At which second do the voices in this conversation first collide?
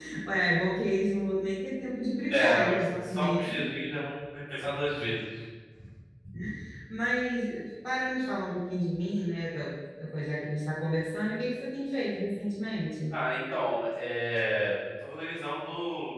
2.3 s

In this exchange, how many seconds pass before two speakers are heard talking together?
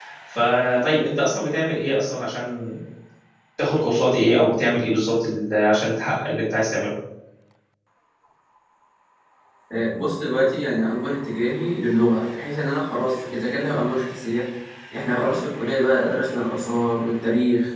none

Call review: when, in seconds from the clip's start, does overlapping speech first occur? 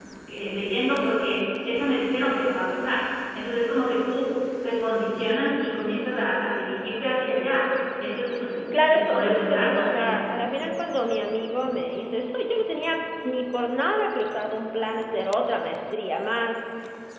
8.7 s

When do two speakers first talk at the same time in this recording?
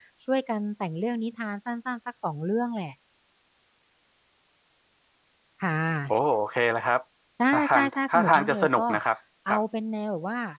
7.5 s

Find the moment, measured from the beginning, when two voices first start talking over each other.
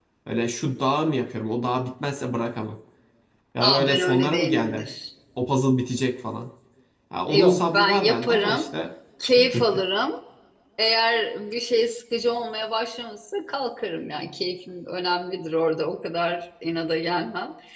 3.6 s

